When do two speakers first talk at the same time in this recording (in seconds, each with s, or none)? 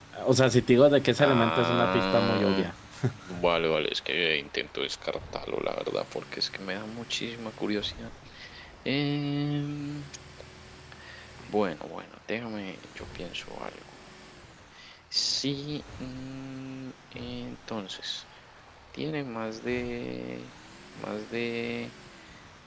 1.2 s